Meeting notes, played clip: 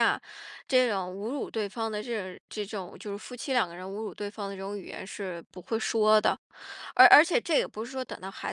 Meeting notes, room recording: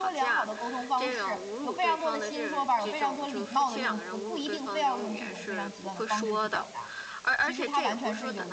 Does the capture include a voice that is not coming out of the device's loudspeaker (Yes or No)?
Yes